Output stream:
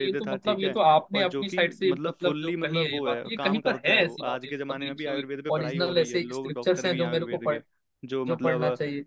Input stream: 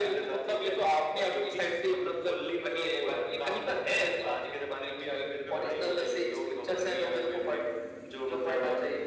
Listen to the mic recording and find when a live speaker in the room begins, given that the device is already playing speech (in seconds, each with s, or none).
none